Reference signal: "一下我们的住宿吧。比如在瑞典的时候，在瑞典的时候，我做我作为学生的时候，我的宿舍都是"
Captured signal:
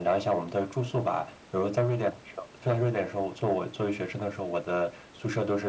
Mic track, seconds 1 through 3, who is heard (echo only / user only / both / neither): echo only